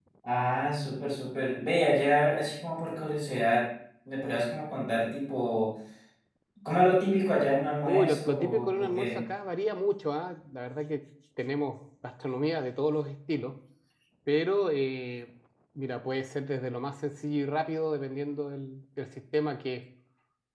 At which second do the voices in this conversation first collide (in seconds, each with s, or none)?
7.8 s